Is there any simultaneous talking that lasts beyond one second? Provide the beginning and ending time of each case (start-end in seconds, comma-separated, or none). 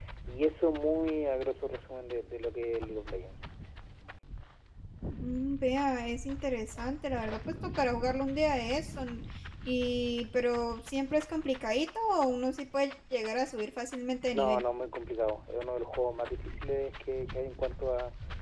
none